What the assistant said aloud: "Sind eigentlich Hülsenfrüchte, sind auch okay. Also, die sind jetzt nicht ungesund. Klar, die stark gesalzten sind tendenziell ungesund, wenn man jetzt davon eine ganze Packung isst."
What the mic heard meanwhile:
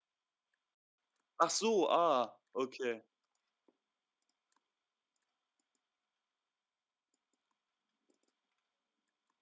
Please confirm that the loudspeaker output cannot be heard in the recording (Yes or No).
Yes